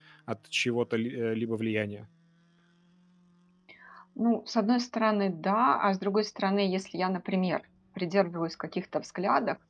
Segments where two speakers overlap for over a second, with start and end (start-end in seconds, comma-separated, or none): none